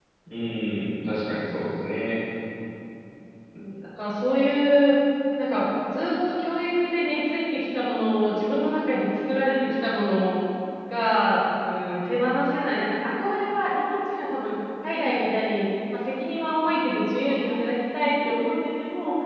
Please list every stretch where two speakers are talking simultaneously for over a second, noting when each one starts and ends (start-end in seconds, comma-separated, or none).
none